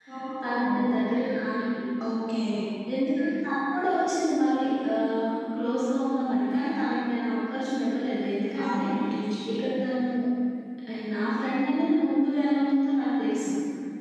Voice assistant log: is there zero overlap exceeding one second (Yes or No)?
Yes